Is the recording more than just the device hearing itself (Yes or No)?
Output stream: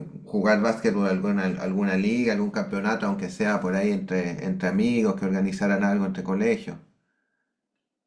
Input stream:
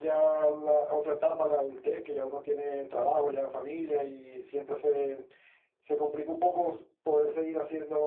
Yes